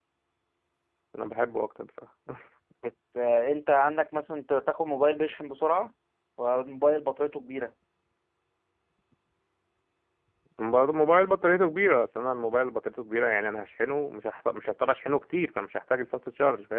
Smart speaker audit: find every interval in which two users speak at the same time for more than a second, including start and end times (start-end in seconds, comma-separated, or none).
none